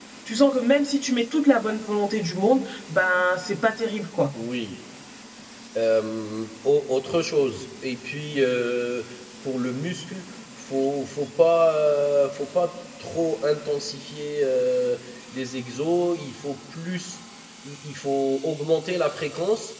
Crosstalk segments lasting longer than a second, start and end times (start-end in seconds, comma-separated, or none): none